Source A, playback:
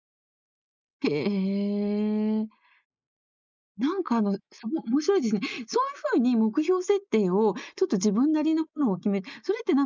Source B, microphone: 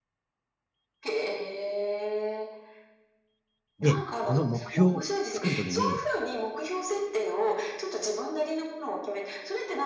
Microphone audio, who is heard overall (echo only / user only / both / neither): both